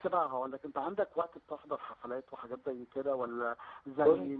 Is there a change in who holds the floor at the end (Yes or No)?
No